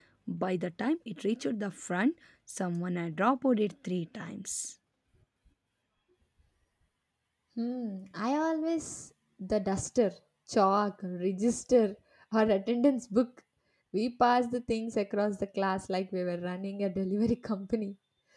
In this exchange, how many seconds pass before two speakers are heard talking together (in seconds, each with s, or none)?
none